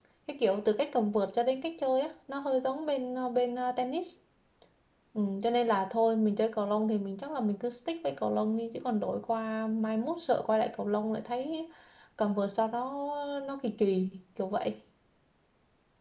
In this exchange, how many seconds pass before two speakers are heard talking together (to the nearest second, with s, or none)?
none